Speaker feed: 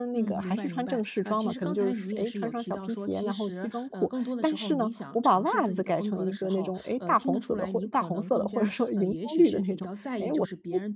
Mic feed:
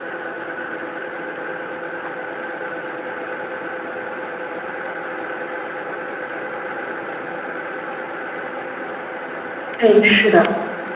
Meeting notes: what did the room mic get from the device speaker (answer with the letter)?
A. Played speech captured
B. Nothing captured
B